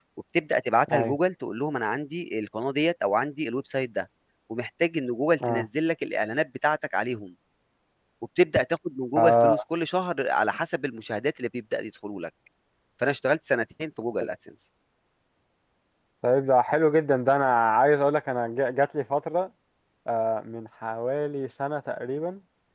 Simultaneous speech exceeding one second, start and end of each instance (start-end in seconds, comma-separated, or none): none